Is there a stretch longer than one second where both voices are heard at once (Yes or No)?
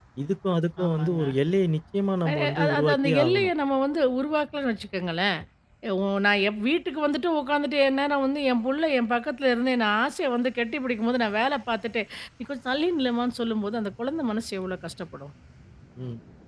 Yes